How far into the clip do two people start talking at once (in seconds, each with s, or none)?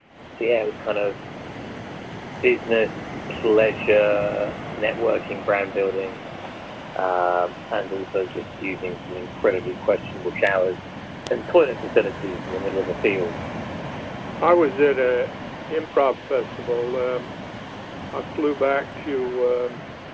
none